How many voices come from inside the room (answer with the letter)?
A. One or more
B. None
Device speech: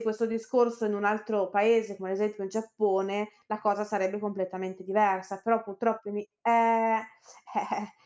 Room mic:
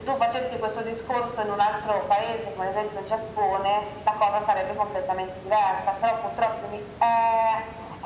B